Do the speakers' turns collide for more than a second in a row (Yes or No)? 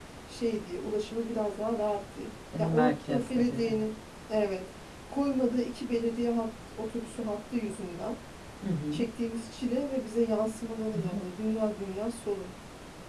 Yes